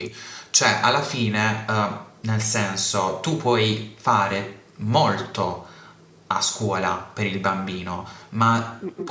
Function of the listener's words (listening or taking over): listening